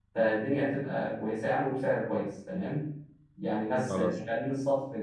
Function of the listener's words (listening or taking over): listening